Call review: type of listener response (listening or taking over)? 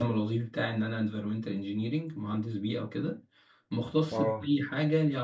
listening